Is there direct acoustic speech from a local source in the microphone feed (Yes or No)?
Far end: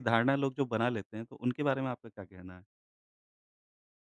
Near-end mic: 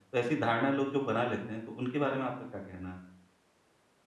No